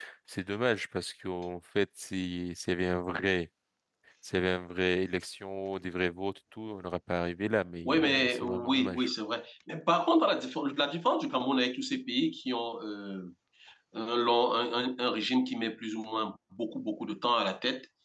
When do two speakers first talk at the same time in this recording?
7.8 s

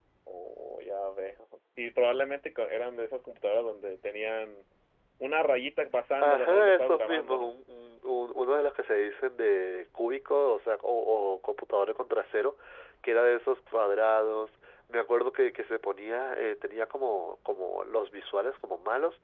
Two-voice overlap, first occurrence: 6.2 s

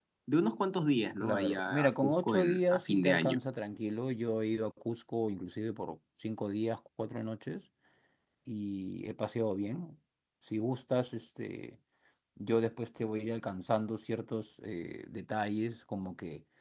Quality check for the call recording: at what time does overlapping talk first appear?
1.2 s

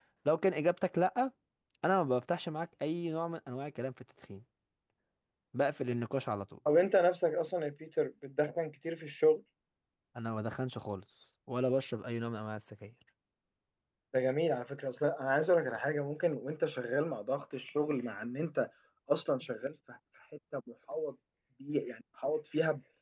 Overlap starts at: none

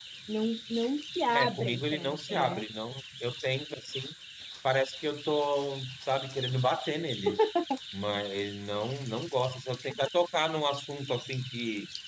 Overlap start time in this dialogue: 1.3 s

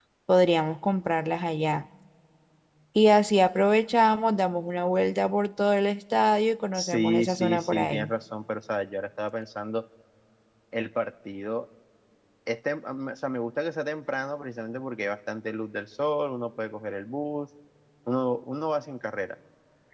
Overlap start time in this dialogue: 6.7 s

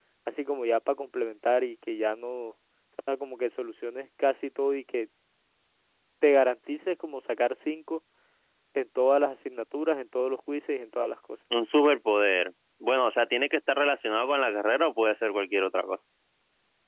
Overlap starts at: none

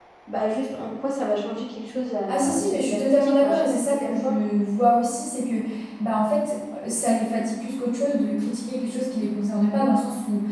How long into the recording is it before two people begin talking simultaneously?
2.3 s

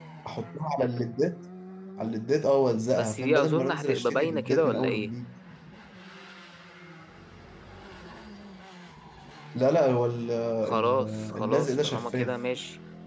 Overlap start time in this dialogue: 3.0 s

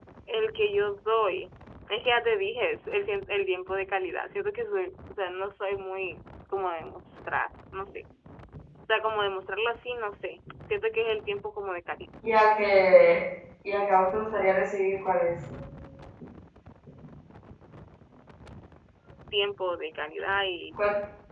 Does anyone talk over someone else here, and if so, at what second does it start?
none

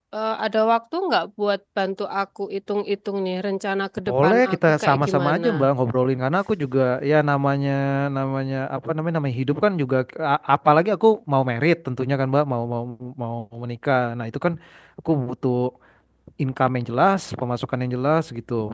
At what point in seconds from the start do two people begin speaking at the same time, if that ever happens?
4.1 s

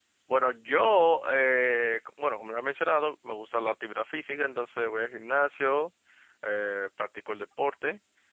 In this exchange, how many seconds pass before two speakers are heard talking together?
none

